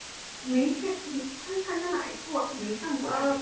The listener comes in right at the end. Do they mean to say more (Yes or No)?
Yes